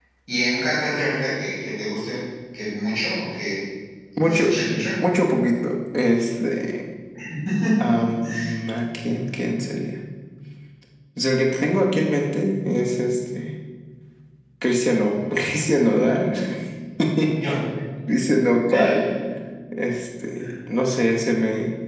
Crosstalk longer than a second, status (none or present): none